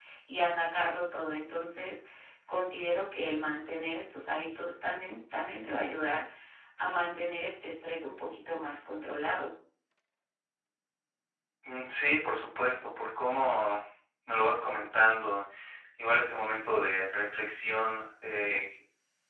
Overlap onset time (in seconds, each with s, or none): none